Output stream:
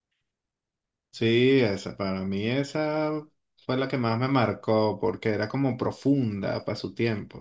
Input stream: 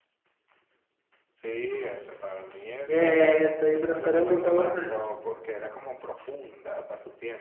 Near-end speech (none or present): present